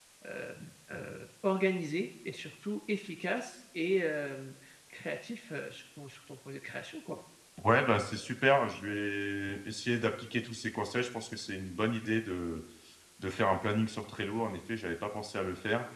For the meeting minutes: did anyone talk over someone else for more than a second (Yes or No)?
No